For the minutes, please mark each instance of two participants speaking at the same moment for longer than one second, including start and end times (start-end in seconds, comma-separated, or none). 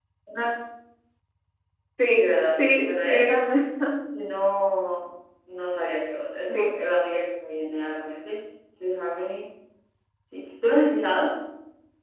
2.1-3.5